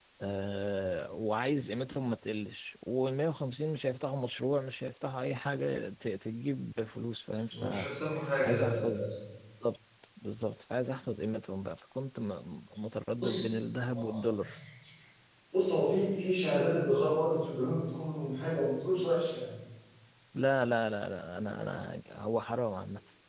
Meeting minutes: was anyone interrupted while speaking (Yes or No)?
Yes